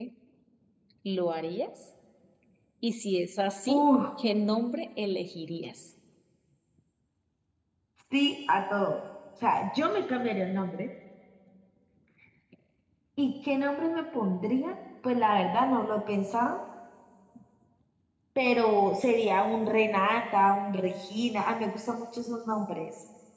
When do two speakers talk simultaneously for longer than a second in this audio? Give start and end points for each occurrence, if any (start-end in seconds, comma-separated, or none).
none